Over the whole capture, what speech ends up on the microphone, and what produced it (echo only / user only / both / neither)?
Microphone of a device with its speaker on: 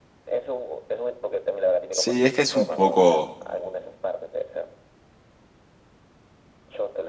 both